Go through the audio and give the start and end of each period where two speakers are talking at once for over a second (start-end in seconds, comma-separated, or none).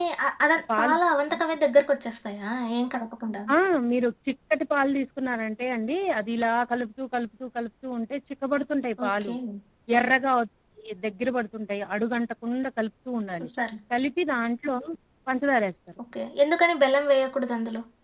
none